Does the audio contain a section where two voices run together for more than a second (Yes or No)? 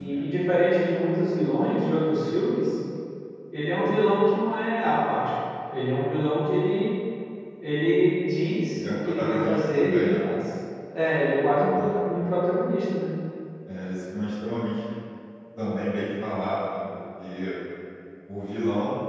Yes